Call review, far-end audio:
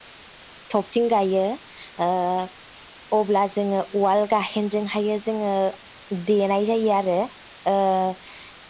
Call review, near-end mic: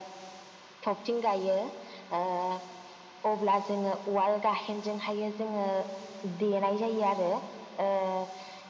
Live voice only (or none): none